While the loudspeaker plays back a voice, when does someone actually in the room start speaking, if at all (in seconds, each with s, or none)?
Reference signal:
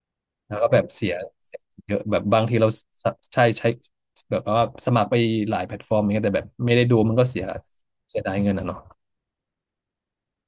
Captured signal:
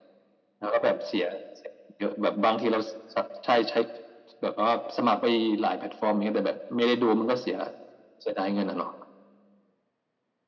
none